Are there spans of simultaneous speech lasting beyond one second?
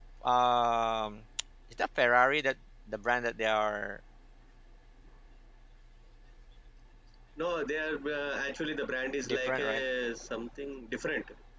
No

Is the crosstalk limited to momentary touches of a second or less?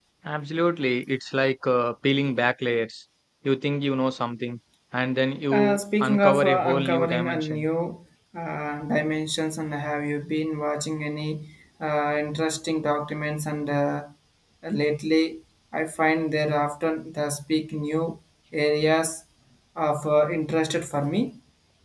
No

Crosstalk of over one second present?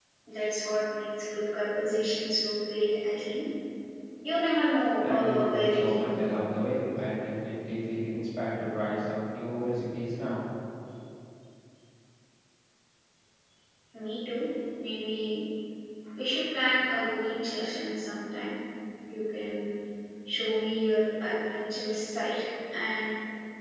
Yes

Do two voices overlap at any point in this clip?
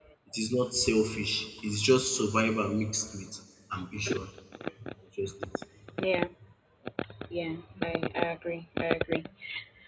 No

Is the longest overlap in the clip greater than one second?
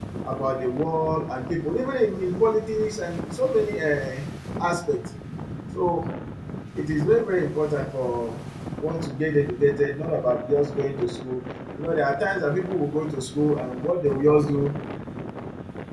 No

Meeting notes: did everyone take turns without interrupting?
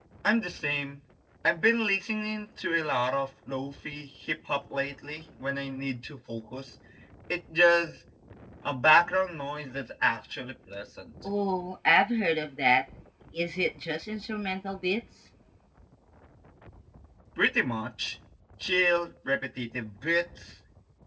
Yes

